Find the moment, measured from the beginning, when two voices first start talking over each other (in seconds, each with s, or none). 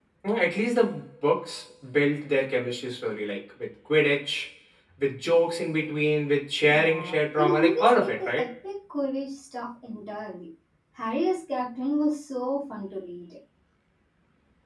6.7 s